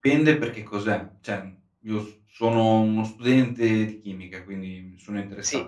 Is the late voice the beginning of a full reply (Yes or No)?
No